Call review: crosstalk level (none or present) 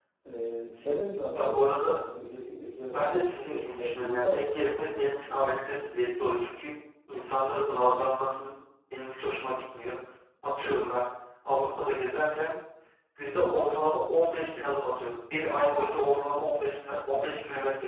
present